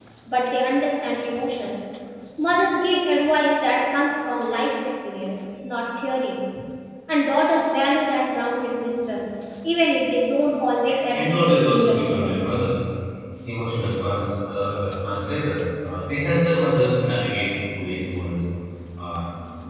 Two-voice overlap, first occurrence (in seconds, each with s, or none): 11.1 s